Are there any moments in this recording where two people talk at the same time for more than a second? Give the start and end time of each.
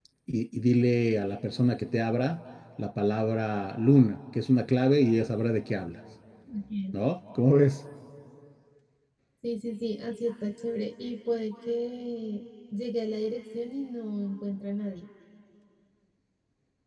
none

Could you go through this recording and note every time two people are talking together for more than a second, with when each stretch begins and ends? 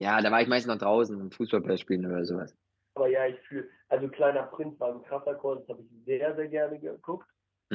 none

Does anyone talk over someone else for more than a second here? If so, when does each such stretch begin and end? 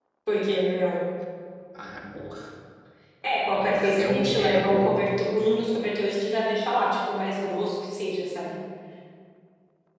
3.5-5.2

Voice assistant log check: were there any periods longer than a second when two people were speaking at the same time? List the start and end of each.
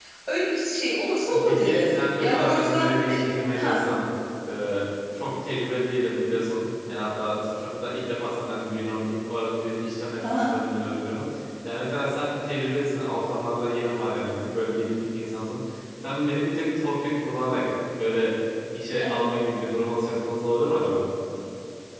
1.3-3.2

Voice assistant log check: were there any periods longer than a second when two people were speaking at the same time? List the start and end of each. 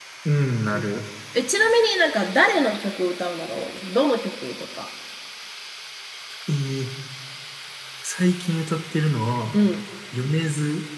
none

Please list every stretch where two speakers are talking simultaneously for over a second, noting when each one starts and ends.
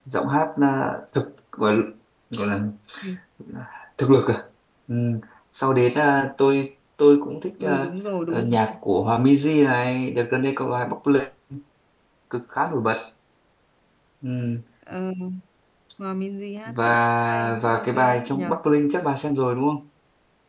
16.7-18.6

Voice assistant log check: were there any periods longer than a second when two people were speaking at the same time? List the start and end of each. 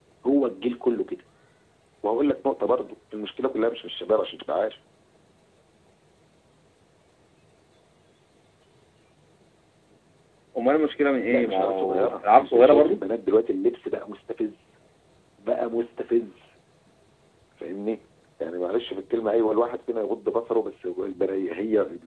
11.3-13.0

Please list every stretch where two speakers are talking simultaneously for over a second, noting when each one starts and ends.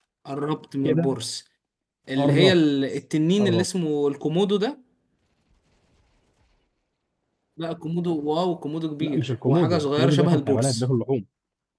9.0-10.8

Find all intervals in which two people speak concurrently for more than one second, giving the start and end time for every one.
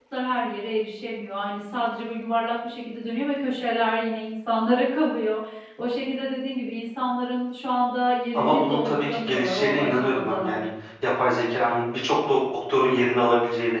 8.3-10.7

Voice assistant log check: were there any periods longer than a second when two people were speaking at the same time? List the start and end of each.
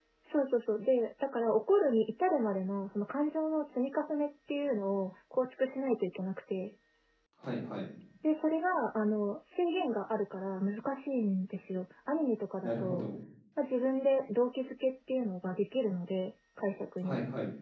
none

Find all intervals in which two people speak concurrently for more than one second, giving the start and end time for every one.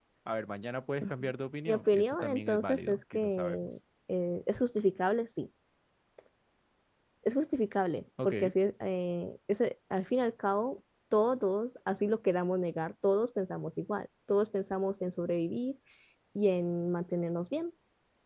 1.7-3.7

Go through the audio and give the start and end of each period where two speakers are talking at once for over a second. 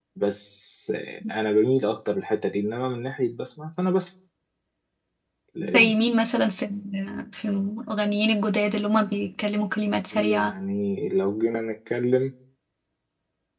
none

